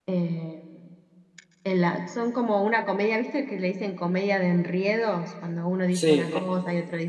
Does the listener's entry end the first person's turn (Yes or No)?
No